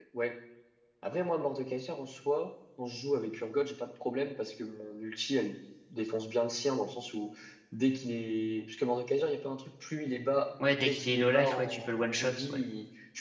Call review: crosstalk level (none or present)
present